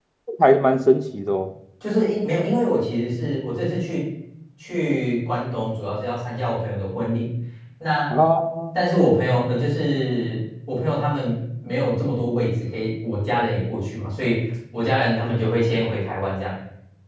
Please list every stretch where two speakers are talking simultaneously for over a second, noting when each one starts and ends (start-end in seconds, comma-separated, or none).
none